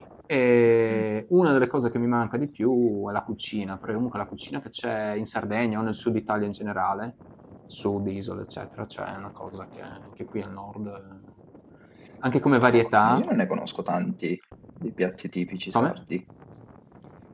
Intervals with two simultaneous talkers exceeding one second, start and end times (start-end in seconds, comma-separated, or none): none